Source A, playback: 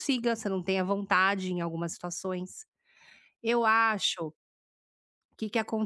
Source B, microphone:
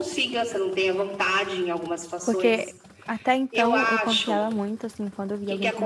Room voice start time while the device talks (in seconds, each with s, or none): 2.2 s